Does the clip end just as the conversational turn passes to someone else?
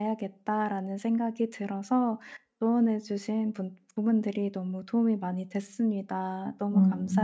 Yes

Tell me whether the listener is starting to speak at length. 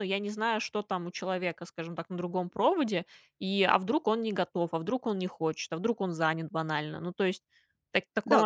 Yes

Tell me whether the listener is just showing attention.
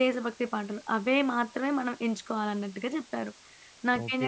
No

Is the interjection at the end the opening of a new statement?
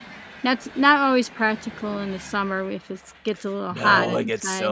Yes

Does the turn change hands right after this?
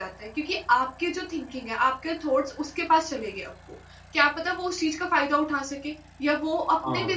No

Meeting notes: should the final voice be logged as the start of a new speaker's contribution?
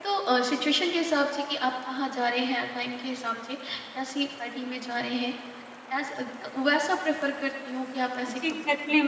Yes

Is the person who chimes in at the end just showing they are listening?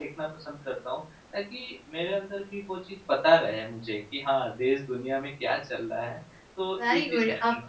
No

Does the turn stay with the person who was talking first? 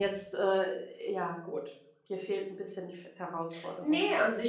No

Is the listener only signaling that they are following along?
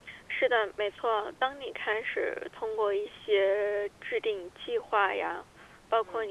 Yes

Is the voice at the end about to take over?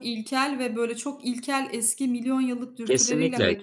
Yes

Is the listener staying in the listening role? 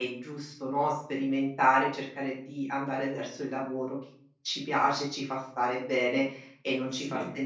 No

